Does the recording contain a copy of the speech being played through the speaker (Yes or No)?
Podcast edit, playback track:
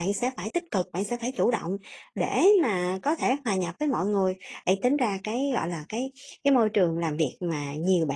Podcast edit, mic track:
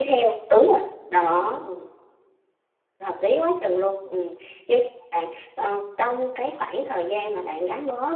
No